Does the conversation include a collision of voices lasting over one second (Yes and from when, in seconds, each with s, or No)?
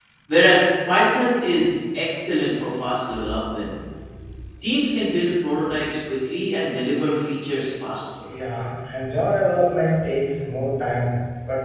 No